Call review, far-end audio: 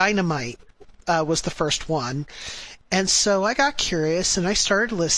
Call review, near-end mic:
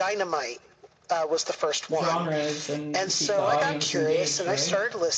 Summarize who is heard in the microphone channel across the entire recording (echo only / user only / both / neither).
both